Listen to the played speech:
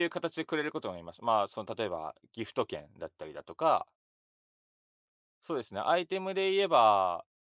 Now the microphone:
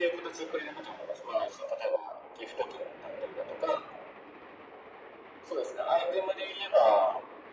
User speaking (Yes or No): No